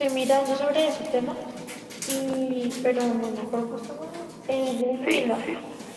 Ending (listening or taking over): taking over